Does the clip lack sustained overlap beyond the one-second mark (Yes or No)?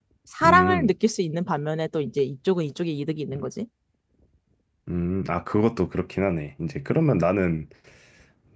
Yes